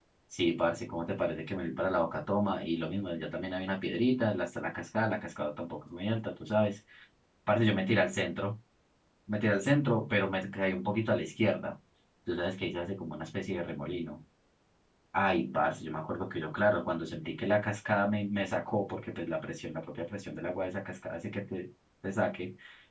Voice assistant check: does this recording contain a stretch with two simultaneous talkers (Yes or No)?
No